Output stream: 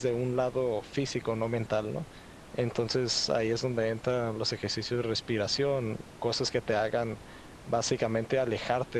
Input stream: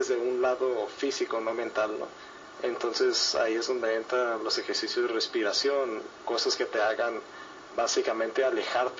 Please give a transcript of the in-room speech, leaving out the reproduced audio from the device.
none

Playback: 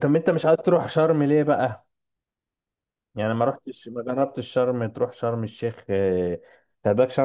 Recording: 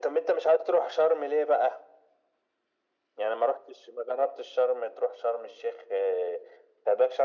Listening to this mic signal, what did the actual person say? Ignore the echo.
none

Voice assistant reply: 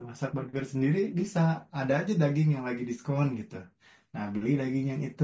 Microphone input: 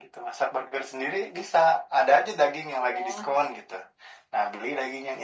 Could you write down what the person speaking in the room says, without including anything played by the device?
itu ya.

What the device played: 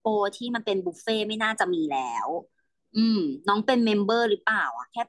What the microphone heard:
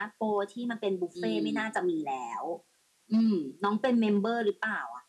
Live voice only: อืม

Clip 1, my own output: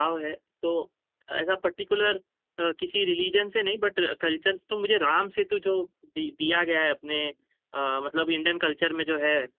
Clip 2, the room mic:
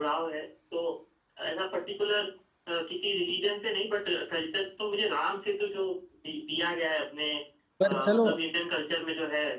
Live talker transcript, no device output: पर चलो

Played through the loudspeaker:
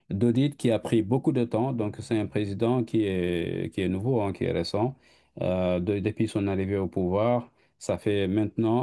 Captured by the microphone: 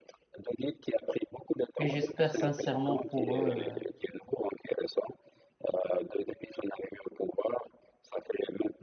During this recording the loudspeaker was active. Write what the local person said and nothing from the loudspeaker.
et j'espère sincèrement pour eux euh,

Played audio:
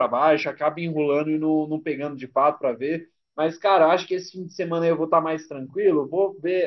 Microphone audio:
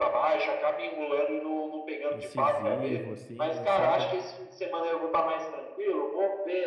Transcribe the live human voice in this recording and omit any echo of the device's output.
incisivo, assim, sabe?

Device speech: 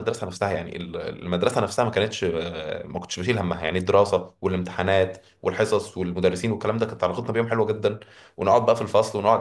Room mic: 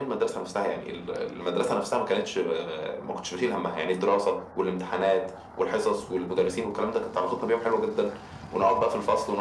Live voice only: none

